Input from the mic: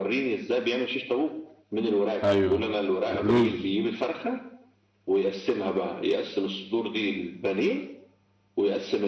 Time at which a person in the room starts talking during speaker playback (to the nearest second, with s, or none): 2 s